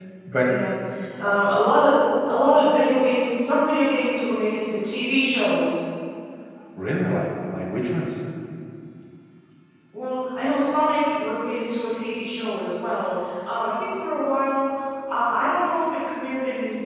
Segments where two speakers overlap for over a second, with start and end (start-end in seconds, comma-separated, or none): none